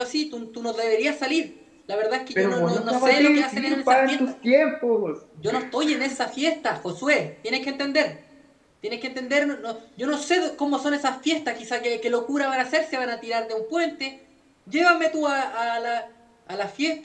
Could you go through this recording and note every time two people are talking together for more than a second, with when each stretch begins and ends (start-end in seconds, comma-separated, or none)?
2.4-4.2